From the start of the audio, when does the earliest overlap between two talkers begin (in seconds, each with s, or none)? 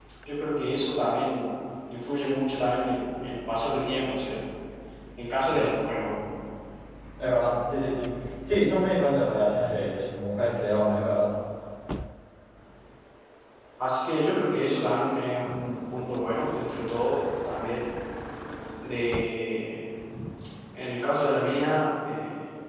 none